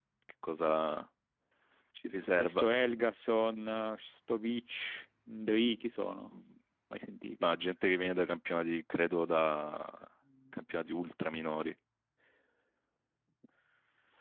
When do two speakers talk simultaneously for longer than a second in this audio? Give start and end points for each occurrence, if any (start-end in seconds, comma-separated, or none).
none